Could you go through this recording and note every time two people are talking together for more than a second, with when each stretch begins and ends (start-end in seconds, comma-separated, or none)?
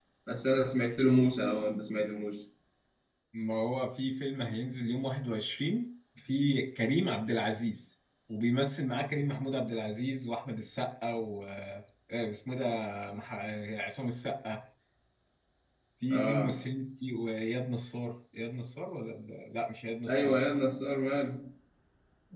none